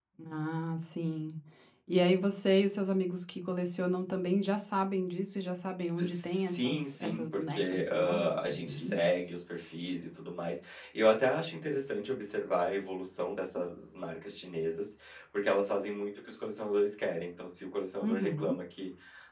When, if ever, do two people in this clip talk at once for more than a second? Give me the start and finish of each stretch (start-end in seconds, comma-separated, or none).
6.0-9.1